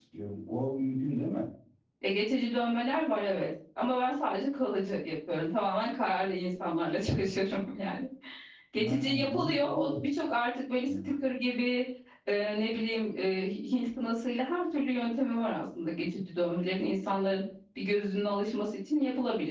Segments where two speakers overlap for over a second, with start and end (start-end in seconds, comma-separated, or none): 8.8-10.1